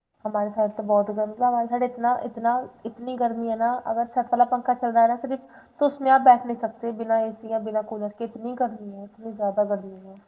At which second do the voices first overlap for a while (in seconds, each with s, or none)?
none